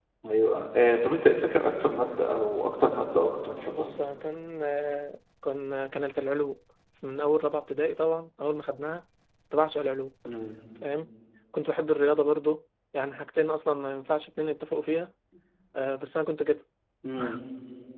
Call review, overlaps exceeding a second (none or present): none